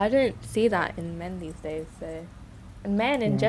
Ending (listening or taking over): listening